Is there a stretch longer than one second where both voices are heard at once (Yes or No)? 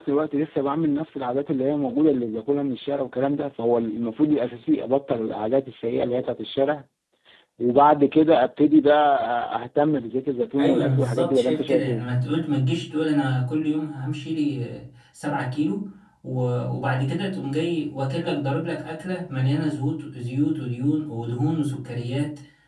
Yes